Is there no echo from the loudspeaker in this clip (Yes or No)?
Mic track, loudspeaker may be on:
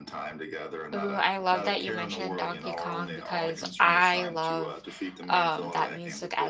No